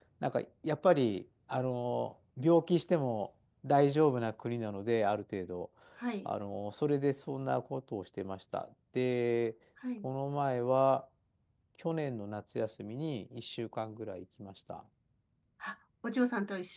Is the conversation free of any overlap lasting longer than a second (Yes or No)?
Yes